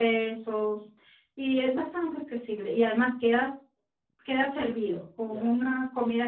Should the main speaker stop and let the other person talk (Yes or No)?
No